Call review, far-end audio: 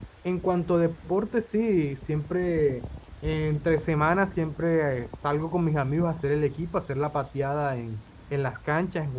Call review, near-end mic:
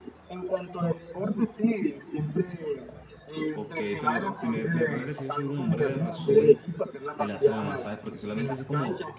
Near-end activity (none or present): present